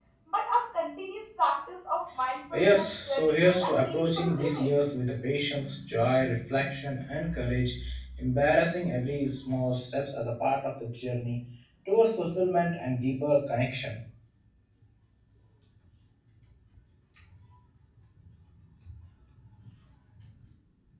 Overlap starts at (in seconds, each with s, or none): 2.5 s